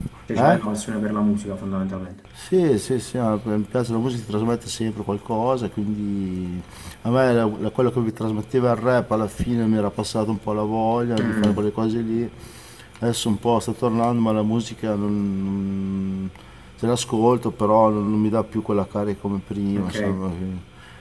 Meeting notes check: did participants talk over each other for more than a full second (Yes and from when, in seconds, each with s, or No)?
No